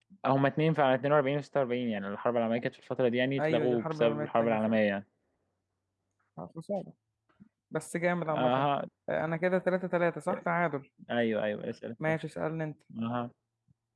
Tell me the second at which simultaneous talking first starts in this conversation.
3.4 s

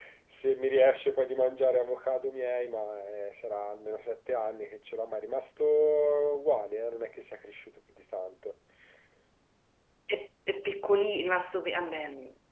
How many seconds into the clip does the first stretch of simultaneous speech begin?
none

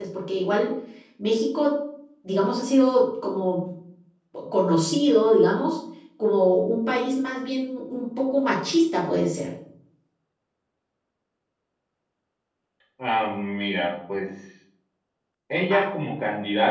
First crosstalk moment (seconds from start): none

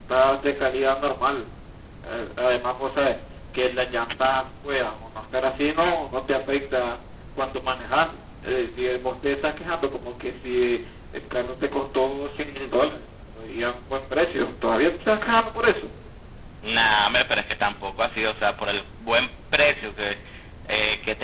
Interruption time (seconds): none

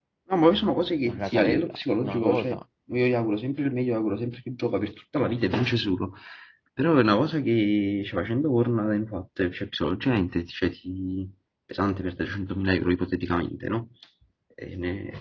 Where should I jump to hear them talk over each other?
1.1 s

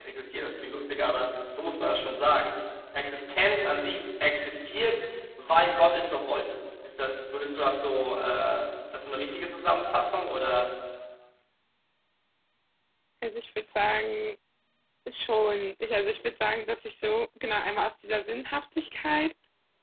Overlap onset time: none

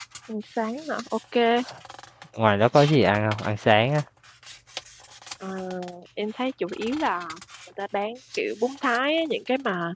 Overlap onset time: none

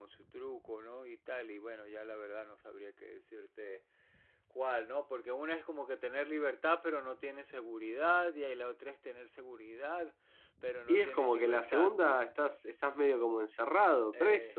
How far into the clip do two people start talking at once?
10.9 s

